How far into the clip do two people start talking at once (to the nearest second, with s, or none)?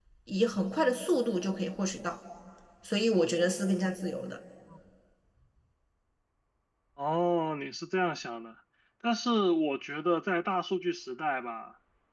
none